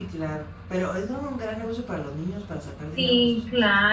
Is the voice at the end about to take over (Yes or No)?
Yes